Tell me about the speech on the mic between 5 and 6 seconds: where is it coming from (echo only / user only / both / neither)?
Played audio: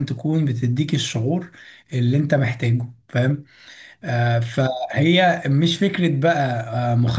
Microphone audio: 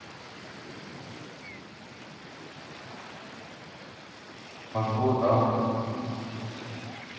user only